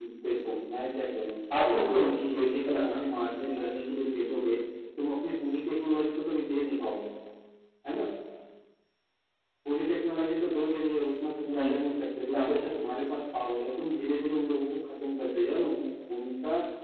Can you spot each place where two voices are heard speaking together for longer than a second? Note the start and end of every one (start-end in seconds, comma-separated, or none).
1.6-3.0